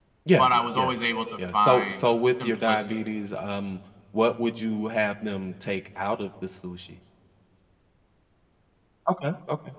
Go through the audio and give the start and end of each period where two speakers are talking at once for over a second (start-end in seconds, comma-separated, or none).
1.5-3.1